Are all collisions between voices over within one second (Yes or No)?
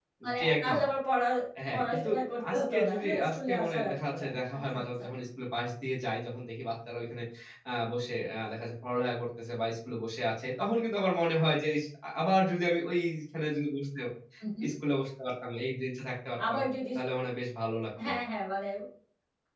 No